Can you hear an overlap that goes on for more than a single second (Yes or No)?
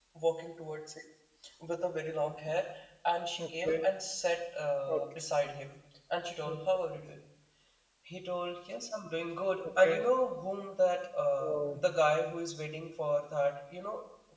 No